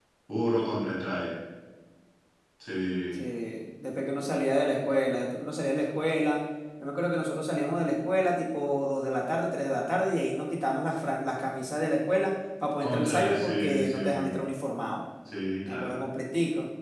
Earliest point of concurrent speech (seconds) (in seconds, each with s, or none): 12.8 s